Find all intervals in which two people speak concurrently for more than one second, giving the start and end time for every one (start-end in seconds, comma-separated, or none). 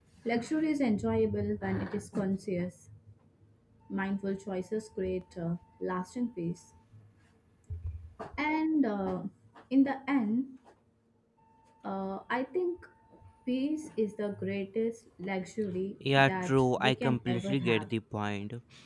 16.0-17.9